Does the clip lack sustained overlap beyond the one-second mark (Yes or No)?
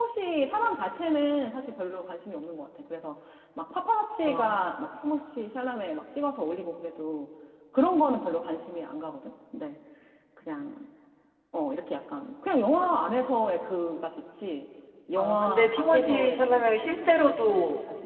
No